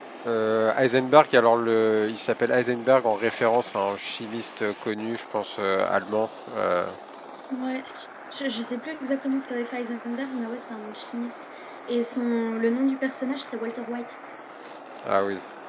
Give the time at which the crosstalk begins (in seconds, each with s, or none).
none